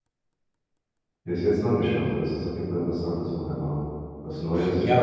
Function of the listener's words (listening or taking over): taking over